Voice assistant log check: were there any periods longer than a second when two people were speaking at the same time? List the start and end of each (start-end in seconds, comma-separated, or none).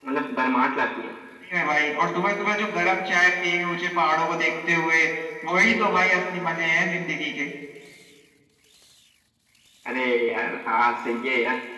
none